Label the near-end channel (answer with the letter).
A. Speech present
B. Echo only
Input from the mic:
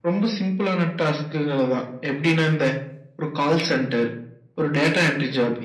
B